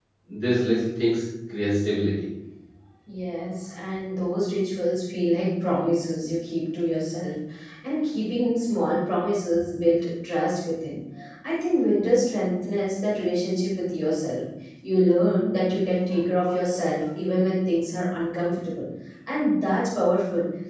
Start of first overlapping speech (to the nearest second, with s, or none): none